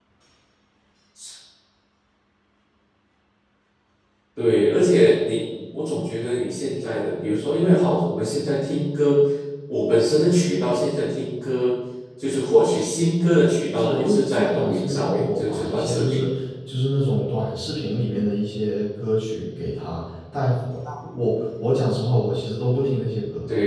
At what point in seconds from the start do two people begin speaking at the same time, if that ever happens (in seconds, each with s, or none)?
13.7 s